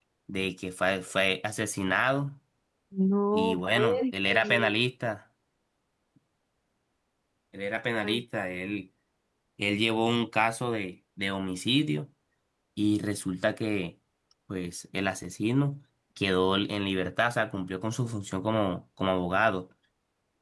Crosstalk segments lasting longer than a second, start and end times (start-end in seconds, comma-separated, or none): 3.3-4.7